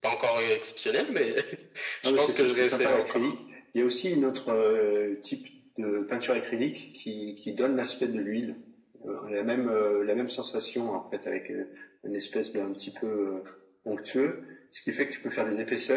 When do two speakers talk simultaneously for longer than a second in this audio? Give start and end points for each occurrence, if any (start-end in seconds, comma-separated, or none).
2.0-3.3